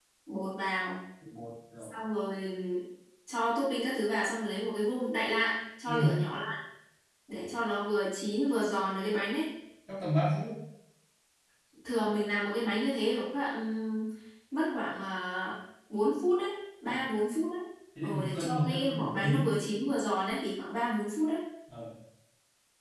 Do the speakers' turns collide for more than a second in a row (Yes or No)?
Yes